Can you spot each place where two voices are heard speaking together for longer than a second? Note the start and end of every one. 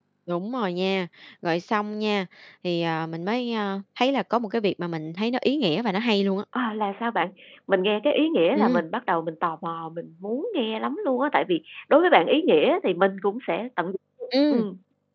none

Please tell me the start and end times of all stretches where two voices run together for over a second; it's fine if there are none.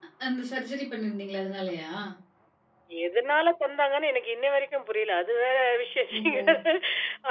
none

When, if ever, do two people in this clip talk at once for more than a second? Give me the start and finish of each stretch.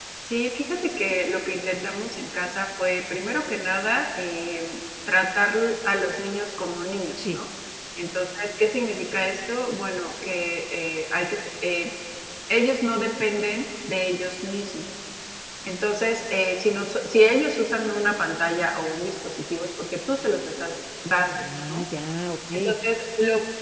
none

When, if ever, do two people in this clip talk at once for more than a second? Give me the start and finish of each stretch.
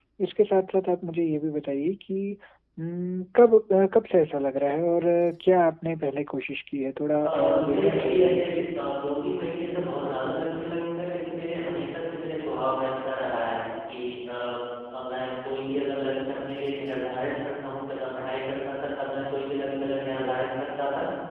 7.2-8.6

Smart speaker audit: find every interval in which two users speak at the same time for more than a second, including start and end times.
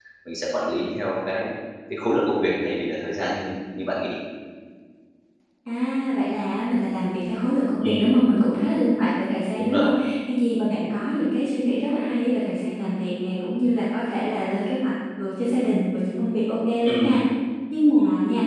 none

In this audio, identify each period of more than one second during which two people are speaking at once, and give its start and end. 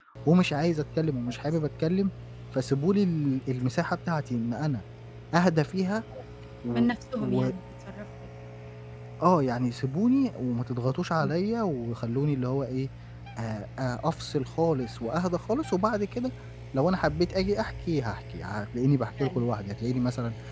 none

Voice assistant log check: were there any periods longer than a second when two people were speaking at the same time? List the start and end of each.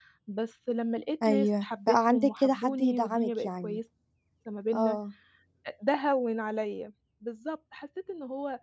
1.2-3.8

